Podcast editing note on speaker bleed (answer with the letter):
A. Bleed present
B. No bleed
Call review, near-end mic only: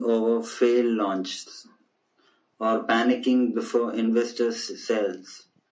A